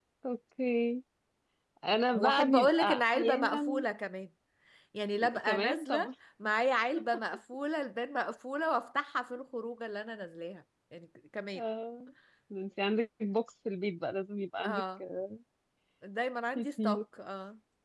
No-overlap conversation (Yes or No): No